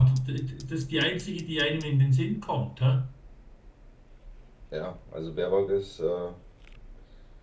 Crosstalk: none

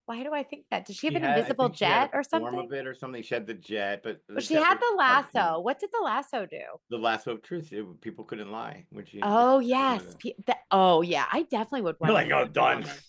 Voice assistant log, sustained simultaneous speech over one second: present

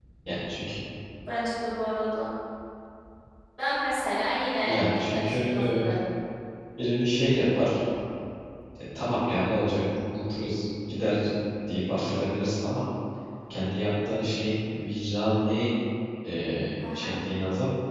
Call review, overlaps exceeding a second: present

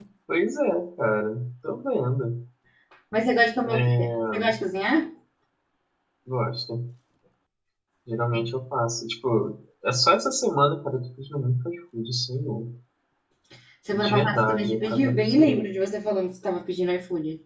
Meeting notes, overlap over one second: present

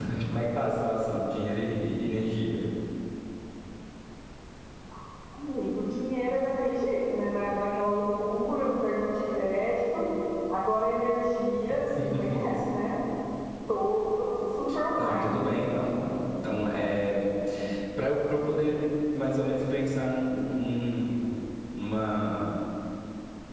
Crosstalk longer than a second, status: none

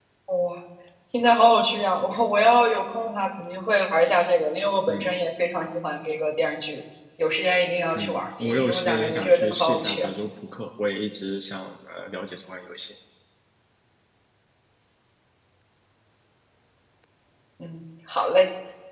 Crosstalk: present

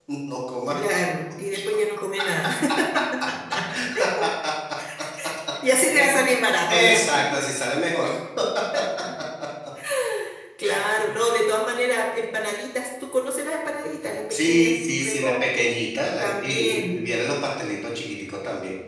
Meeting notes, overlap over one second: present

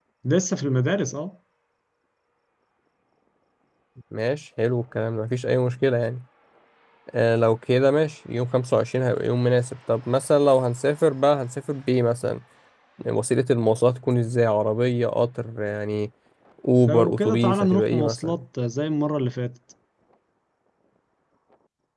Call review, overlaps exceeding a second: present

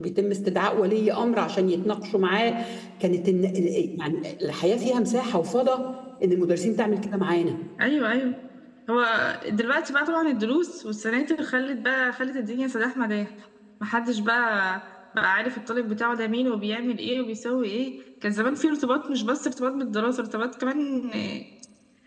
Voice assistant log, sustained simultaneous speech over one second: none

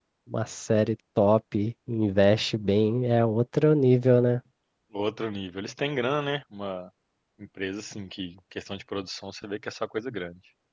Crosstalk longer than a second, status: none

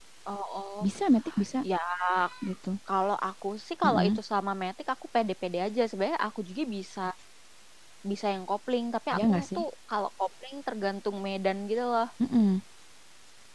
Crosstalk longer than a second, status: none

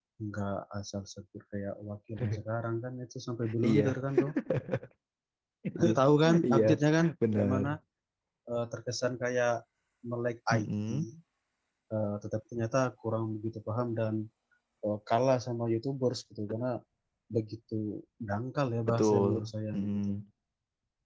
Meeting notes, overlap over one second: present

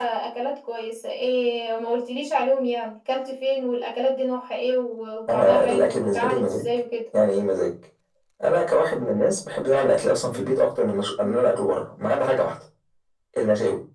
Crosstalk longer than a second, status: present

